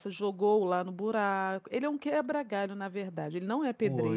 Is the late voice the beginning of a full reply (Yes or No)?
Yes